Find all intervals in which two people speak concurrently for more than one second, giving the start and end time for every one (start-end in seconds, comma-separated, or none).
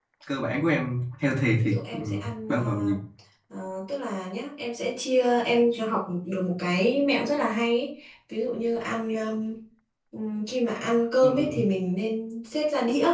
1.6-2.9